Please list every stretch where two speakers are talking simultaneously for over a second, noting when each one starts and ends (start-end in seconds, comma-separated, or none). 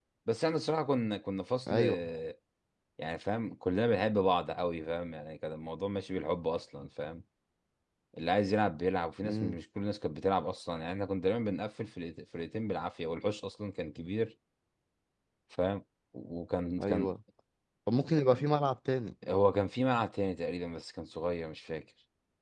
none